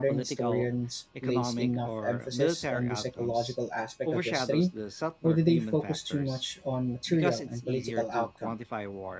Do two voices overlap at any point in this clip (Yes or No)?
Yes